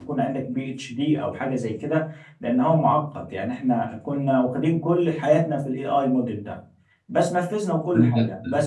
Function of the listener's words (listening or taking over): listening